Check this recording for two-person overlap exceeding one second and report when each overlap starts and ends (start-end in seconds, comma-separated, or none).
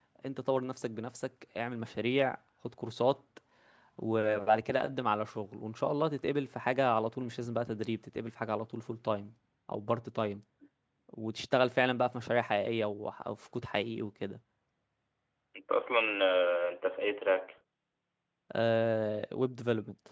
none